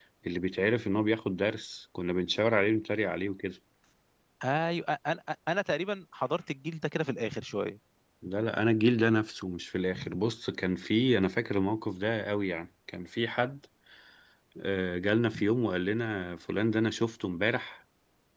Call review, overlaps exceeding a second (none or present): none